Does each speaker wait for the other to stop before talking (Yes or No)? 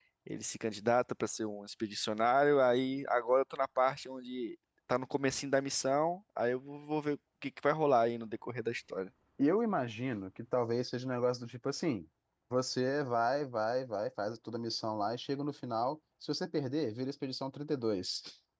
Yes